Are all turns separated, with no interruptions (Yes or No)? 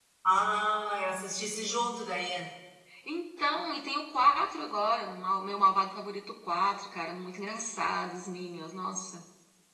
Yes